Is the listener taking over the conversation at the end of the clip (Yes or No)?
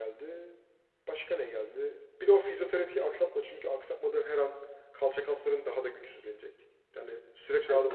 Yes